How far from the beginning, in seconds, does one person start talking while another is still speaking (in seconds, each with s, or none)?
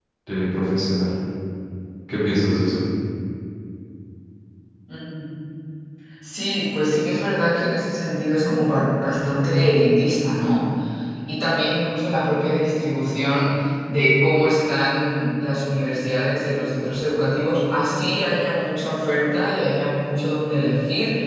none